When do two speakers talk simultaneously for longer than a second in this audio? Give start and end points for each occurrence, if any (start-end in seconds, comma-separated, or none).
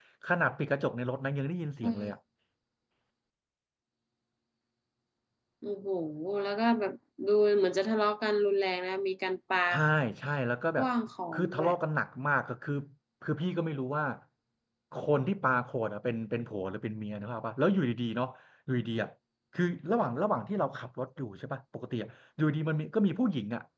none